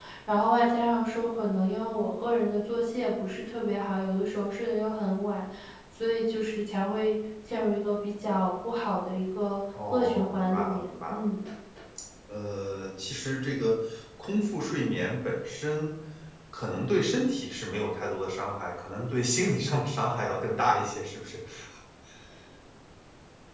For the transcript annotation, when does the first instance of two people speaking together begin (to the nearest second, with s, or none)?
10 s